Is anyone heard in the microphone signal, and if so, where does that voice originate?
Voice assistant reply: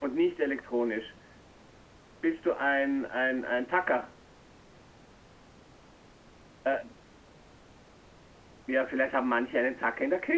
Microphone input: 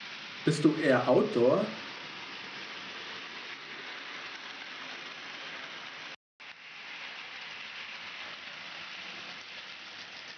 user only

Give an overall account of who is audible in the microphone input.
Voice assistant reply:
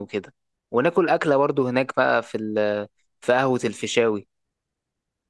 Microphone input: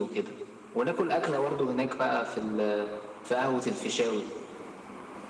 echo only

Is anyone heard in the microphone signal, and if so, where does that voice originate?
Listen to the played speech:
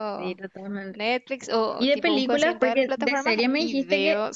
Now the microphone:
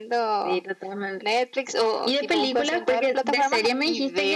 echo only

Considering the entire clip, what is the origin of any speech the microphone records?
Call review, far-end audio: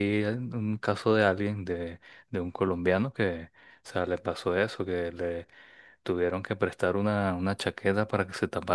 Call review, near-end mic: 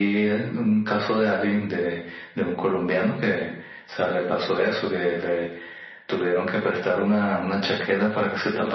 echo only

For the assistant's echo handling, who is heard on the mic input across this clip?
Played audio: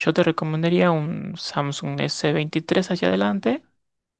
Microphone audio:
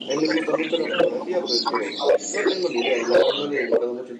both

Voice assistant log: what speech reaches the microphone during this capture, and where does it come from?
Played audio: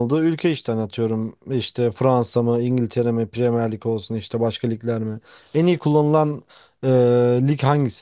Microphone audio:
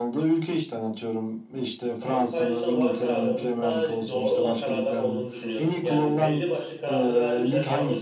both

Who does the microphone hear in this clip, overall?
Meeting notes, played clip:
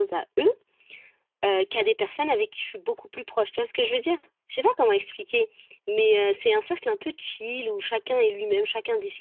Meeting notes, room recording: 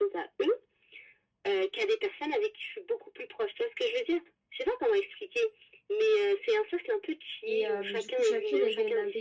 both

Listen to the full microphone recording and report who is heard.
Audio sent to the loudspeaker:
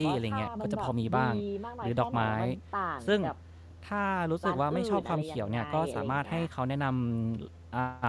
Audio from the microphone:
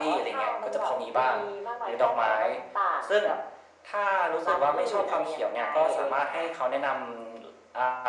echo only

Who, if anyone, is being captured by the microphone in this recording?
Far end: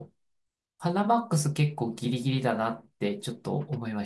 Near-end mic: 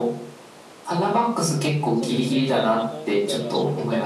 both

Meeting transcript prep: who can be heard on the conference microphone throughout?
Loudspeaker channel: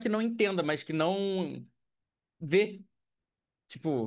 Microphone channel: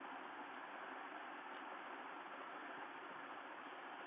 neither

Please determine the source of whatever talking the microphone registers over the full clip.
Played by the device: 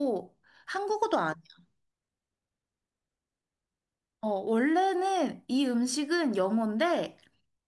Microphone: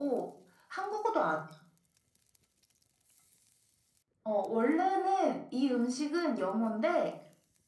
echo only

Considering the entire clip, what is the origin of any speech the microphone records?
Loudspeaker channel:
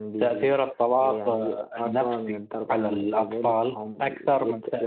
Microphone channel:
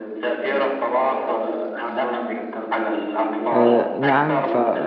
both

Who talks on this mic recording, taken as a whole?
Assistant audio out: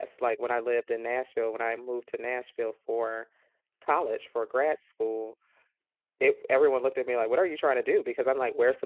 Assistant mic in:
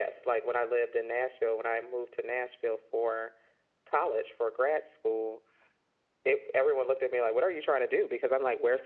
echo only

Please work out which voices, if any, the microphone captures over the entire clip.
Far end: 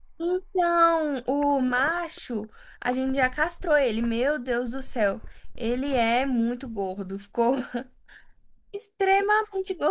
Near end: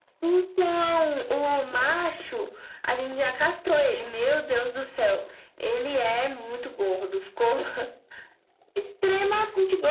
echo only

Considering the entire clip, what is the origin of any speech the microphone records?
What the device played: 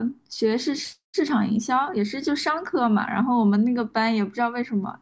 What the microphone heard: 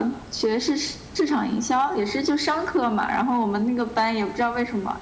echo only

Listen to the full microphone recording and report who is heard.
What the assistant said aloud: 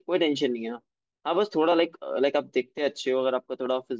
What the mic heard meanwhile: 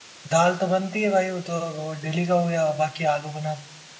user only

